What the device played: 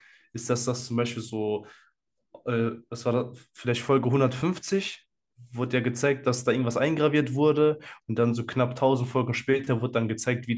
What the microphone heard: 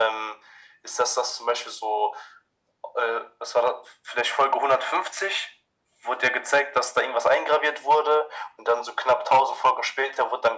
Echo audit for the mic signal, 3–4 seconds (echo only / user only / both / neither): echo only